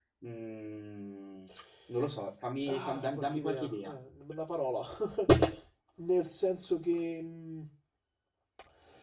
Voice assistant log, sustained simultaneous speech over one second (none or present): present